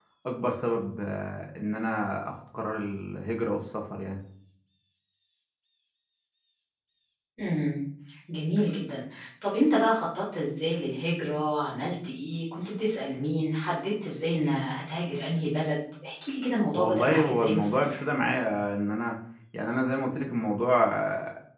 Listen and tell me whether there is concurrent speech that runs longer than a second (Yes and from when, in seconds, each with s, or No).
Yes, from 16.8 s